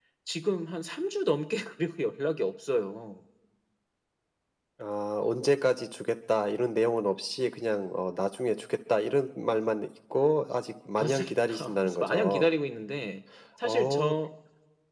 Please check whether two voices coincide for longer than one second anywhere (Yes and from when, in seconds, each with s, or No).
Yes, from 11.0 s